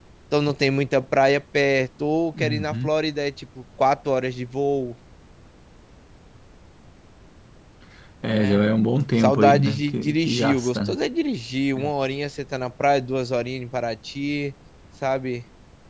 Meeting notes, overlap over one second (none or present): present